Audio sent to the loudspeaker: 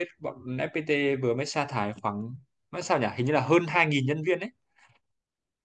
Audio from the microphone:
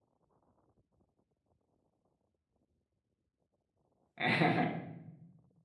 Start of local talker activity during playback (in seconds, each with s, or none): 4.2 s